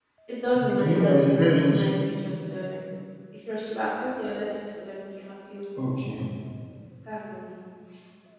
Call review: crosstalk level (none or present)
present